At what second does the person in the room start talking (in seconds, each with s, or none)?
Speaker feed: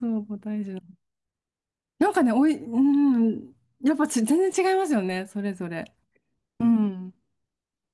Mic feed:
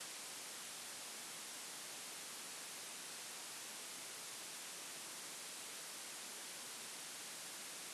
none